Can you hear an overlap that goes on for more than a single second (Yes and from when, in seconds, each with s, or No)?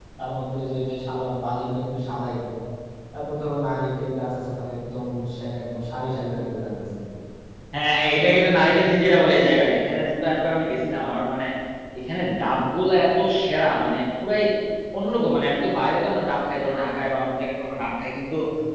No